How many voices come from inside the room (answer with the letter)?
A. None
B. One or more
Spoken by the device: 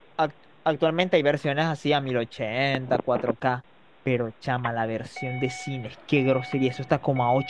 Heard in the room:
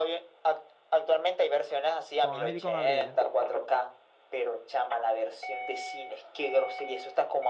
B